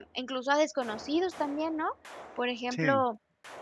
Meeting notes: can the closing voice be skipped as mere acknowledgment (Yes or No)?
Yes